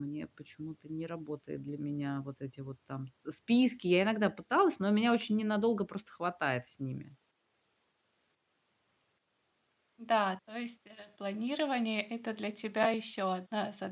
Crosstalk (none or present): none